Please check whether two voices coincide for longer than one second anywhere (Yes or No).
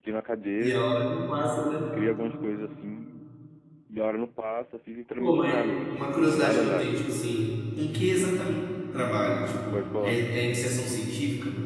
Yes